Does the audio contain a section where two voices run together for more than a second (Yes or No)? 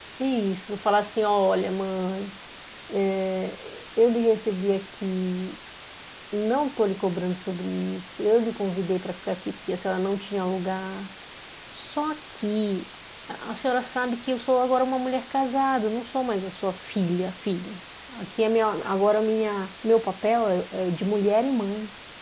No